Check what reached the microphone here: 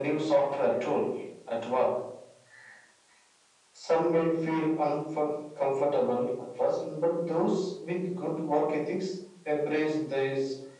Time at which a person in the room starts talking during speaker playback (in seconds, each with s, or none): none